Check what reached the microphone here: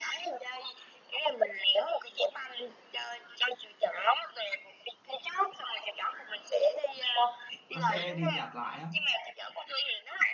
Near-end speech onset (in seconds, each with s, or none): 7.7 s